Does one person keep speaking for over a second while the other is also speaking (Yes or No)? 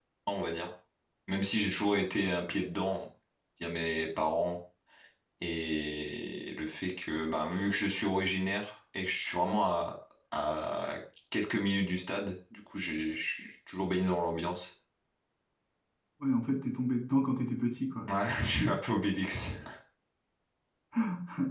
No